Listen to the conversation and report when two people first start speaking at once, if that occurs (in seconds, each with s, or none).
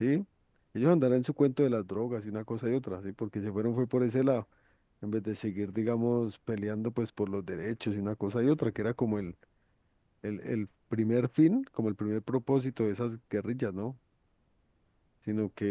none